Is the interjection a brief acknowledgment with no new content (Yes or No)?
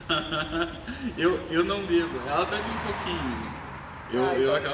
Yes